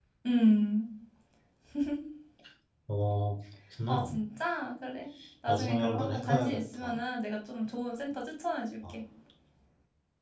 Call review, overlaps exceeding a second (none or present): present